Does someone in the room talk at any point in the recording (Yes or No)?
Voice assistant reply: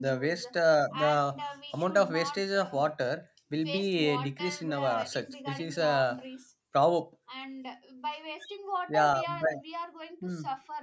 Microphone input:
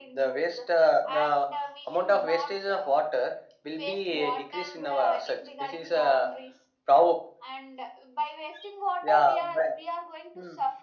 No